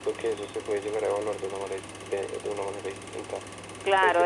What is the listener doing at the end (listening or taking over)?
taking over